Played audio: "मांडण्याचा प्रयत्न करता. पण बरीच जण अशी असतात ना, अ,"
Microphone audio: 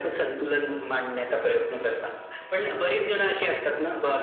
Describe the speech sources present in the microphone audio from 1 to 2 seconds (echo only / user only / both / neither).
echo only